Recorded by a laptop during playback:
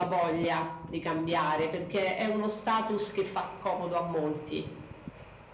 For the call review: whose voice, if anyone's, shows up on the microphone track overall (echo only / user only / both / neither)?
echo only